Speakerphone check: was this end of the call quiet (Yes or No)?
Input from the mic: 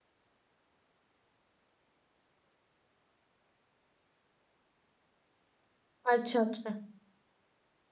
No